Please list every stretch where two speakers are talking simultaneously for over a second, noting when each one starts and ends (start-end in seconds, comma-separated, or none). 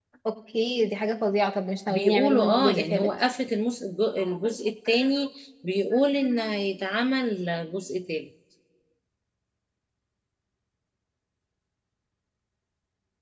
1.9-3.1